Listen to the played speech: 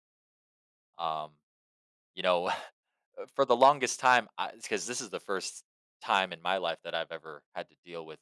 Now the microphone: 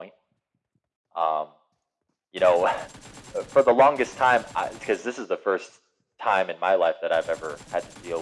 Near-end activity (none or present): none